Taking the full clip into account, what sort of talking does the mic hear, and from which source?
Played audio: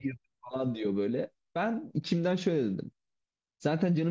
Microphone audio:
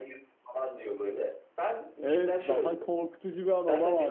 both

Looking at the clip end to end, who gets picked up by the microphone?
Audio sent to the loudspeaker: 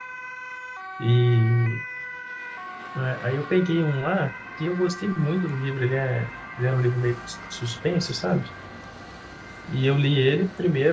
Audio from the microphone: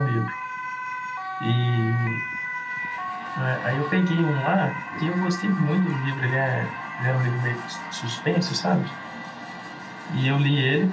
echo only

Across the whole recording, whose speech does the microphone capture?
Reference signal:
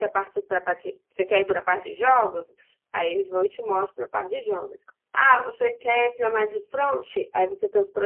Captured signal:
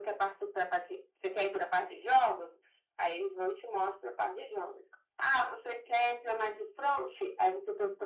echo only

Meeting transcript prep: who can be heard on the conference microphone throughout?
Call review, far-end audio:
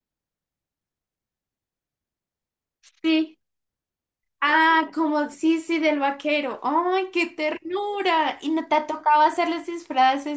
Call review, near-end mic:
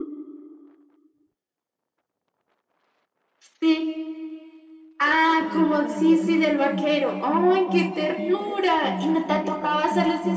both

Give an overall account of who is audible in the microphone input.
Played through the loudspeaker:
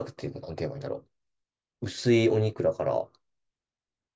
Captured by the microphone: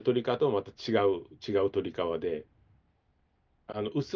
user only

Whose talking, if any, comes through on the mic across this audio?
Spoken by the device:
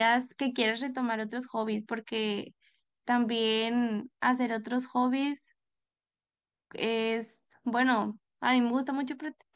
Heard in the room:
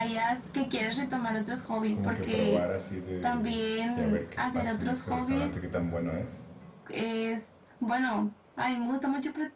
both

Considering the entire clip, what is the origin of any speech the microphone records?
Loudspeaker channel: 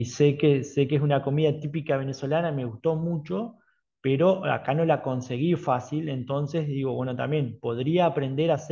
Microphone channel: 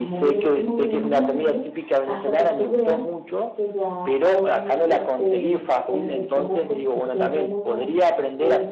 both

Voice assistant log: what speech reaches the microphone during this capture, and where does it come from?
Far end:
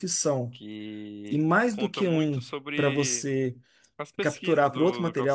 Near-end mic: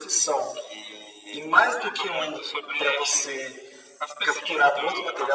echo only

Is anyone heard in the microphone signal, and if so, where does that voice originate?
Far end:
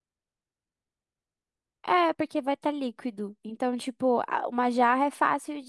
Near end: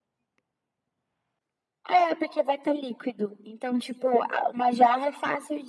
echo only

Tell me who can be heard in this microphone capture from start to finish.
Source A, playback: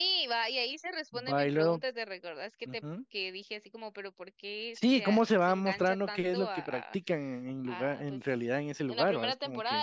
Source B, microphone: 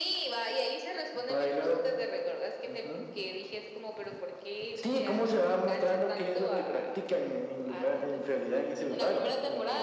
echo only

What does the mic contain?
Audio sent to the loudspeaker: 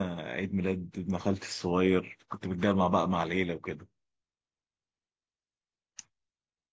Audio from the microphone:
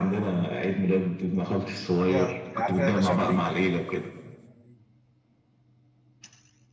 both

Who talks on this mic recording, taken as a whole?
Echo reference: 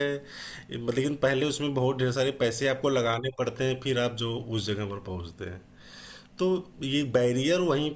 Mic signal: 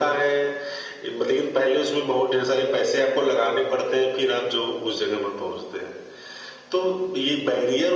echo only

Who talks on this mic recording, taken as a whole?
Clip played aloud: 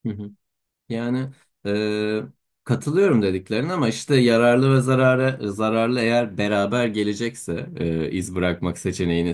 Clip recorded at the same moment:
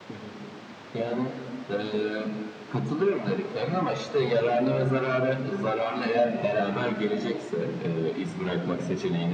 echo only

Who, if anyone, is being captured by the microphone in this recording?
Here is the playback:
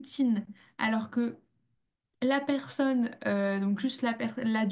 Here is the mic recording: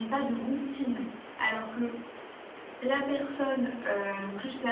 echo only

